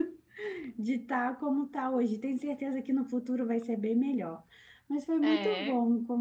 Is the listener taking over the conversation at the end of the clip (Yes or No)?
No